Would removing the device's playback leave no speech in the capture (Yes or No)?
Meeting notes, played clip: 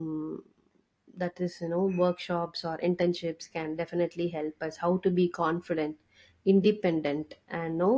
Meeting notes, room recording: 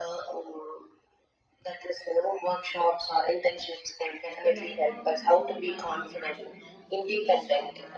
No